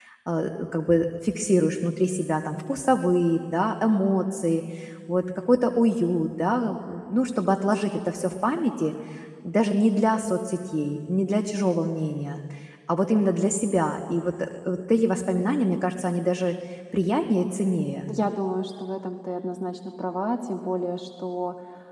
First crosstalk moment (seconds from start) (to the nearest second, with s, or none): none